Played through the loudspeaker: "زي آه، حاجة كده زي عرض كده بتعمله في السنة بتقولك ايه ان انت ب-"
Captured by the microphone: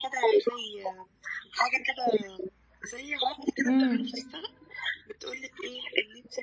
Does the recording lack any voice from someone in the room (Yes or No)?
No